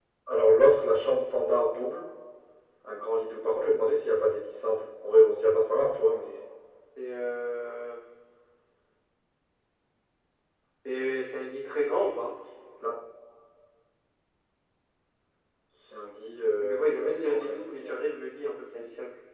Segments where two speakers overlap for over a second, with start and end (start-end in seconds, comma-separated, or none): 16.6-18.0